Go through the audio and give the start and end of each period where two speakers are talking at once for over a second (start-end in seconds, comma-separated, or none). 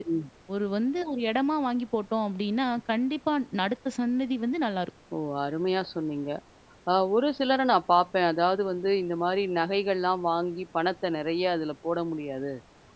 none